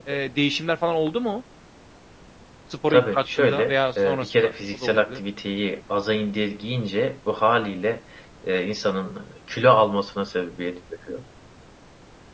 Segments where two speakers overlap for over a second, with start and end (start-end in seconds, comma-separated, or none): 2.9-5.2